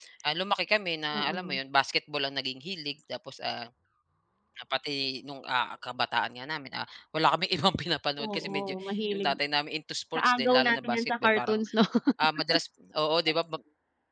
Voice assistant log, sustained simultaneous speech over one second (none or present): present